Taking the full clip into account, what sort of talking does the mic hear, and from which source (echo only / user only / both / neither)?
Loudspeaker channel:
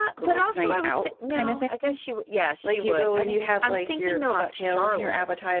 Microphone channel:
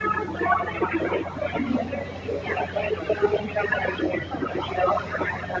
echo only